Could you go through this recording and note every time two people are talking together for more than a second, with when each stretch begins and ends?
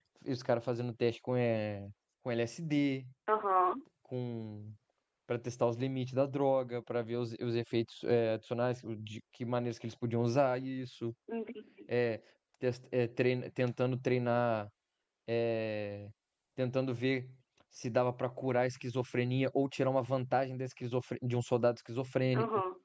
none

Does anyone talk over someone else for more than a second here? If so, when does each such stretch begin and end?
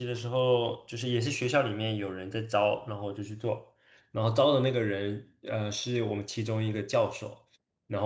none

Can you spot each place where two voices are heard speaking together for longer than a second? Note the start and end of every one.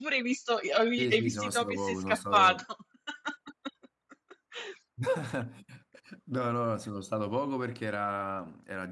1.0-2.6

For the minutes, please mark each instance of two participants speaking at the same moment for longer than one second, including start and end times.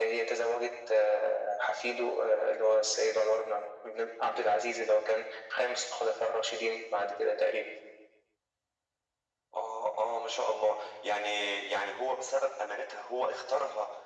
none

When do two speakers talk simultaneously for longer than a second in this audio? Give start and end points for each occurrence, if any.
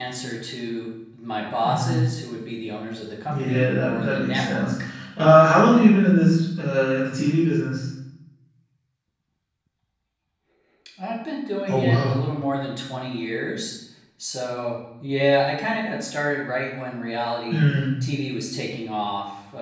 3.3-4.7

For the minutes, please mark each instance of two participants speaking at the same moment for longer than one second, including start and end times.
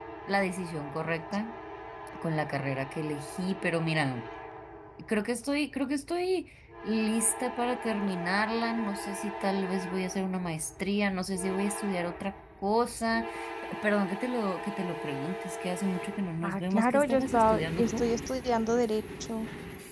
16.4-18.1

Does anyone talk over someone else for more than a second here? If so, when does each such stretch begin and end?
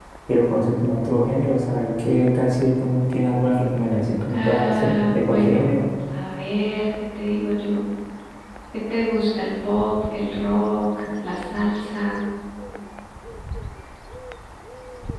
4.3-5.8

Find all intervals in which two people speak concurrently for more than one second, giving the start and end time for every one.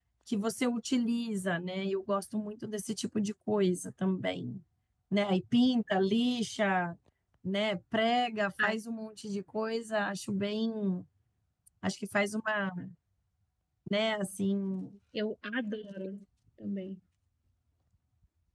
none

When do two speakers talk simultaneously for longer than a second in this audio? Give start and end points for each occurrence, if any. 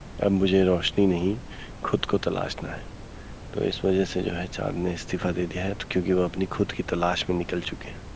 none

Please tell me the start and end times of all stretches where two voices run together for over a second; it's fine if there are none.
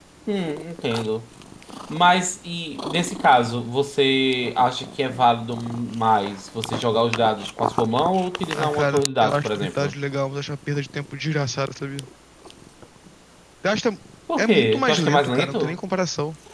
8.5-9.9, 14.4-15.7

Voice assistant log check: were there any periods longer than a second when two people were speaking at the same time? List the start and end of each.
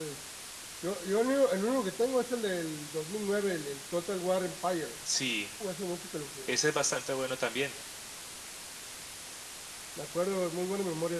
none

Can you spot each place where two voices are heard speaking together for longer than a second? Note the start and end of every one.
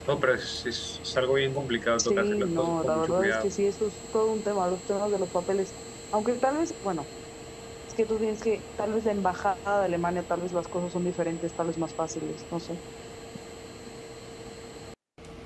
2.0-3.5

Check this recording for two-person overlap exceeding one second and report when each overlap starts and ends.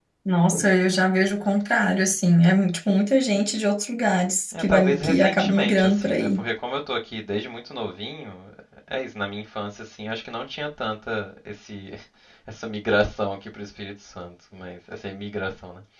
4.6-6.4

